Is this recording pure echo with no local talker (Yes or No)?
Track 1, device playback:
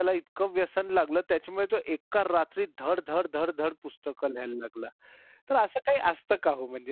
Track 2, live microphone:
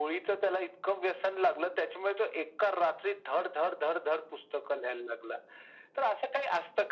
Yes